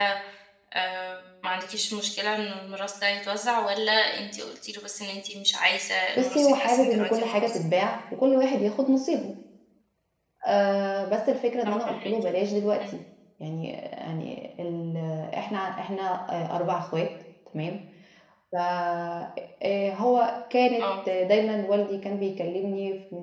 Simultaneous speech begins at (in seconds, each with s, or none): 6.2 s